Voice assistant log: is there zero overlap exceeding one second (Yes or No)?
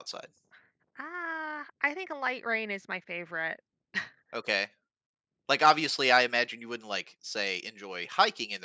Yes